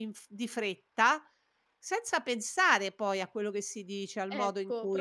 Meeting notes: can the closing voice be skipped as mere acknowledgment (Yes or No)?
No